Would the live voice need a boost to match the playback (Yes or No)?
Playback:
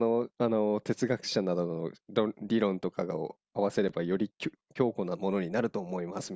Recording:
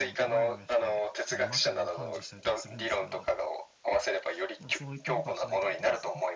Yes